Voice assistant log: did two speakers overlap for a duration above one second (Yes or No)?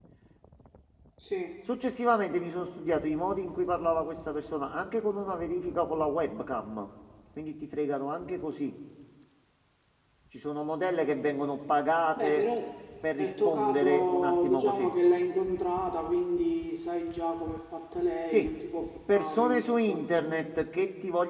Yes